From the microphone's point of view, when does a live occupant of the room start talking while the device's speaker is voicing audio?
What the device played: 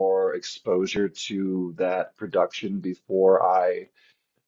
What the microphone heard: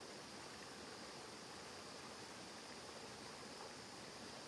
none

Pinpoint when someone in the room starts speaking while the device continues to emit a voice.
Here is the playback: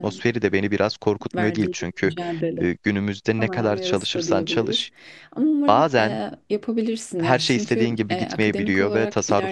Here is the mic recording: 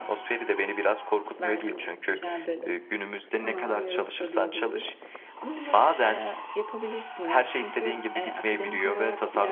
none

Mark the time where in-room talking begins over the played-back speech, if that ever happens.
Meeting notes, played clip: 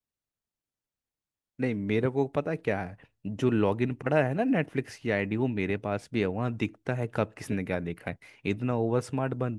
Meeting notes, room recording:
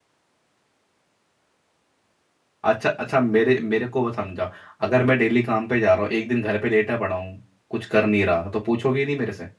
3 s

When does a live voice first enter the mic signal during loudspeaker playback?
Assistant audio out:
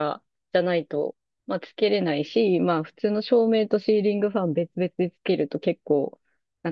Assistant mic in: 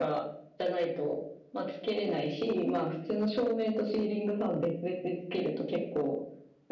none

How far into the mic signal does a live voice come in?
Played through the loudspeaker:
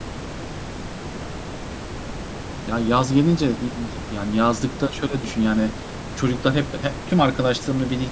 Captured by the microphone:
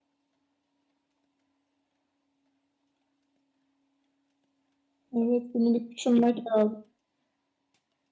5 s

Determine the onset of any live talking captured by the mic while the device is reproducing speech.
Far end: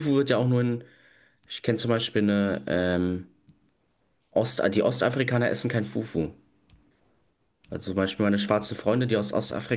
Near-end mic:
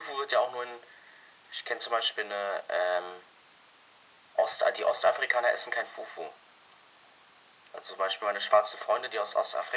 none

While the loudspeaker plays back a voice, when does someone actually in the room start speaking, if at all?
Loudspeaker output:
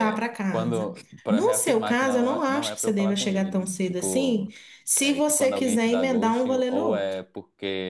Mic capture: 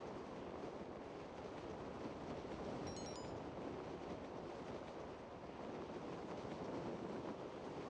none

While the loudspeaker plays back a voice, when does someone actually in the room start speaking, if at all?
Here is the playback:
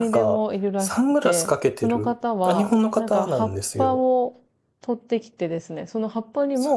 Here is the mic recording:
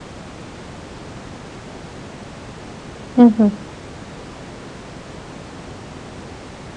3 s

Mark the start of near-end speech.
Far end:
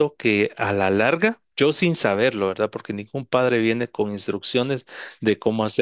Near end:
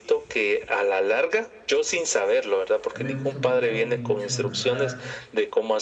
3 s

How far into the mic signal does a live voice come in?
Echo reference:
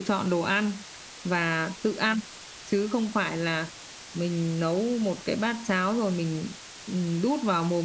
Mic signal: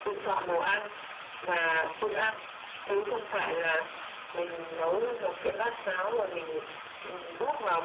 none

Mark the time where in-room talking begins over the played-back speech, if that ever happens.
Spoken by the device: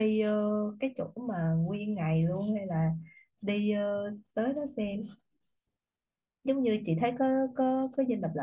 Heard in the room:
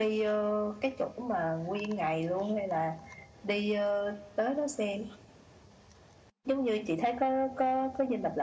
none

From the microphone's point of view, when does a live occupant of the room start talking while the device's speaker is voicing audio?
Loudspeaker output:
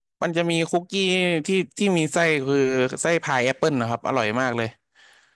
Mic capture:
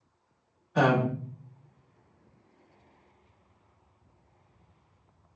1 s

